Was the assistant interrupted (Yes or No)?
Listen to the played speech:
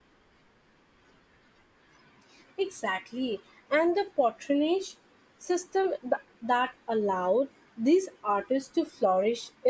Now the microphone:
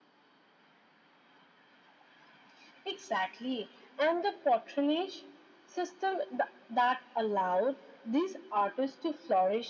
No